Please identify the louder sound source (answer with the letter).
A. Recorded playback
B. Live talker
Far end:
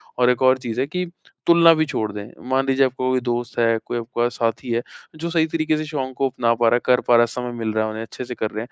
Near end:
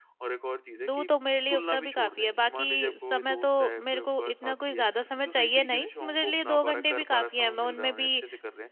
B